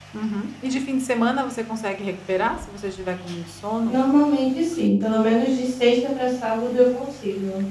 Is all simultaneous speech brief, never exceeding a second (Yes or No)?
Yes